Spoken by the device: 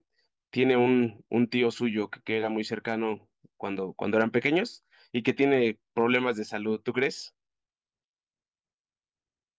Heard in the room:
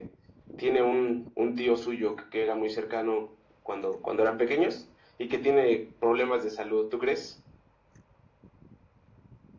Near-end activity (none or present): none